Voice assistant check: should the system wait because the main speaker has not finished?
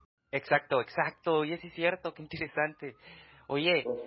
Yes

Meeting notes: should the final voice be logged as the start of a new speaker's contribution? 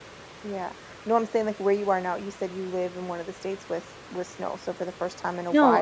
Yes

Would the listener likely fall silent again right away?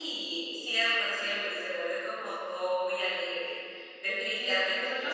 No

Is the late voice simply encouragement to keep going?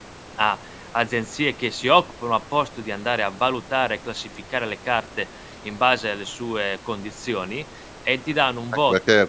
No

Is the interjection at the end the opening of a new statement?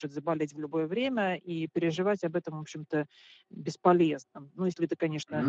No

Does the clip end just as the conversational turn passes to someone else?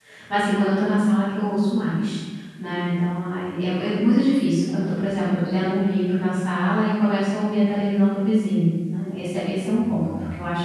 No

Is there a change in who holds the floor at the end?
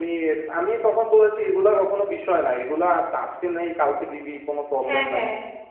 No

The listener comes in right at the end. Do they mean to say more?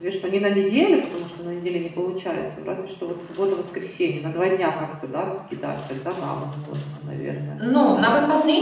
Yes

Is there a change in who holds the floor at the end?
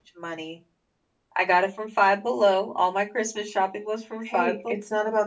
Yes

